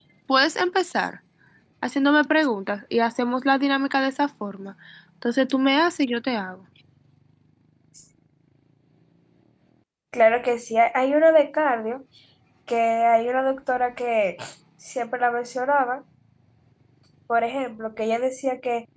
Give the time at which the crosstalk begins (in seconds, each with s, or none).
none